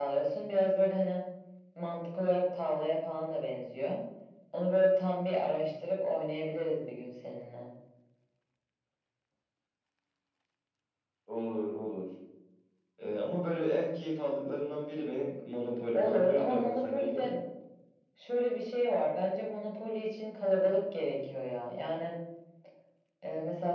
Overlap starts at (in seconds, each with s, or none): 15.9 s